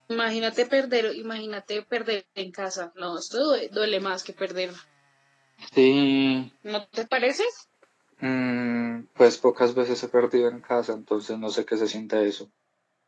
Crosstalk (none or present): none